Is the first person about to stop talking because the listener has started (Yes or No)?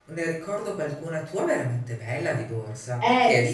Yes